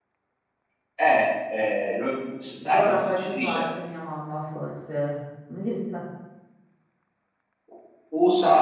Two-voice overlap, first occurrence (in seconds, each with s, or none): 2.3 s